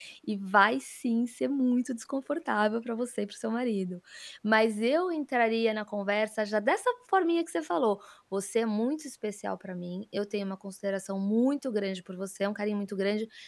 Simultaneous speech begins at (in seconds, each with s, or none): none